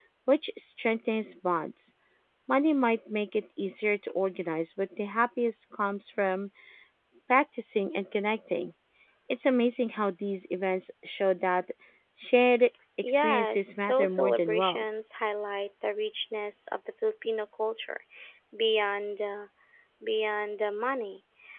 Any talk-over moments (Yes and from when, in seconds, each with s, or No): Yes, from 13.0 s